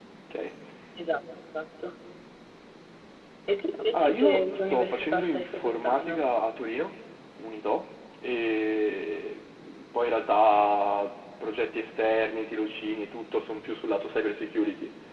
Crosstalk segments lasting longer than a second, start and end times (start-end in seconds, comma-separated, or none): 3.9-6.2